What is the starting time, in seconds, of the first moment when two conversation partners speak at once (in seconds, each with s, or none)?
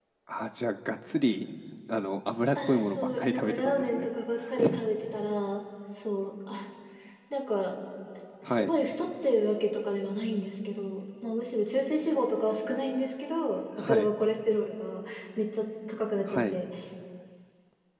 2.5 s